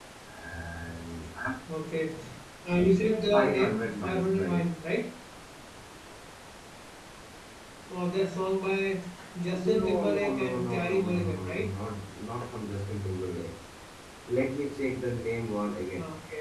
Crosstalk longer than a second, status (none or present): present